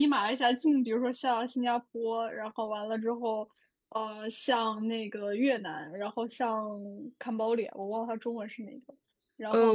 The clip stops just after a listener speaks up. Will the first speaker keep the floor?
No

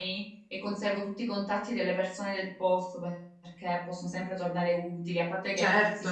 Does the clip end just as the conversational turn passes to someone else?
No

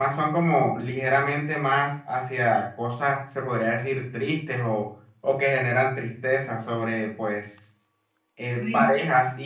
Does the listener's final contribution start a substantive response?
No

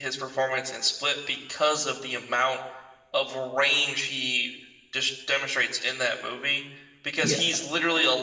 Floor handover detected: No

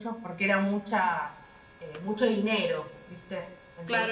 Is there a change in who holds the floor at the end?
Yes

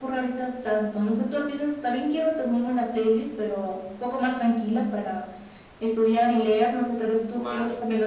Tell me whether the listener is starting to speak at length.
Yes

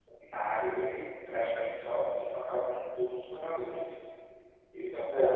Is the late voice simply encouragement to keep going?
Yes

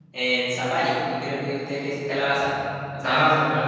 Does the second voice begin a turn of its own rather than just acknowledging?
No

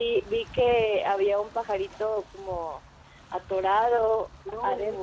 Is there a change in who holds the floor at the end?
No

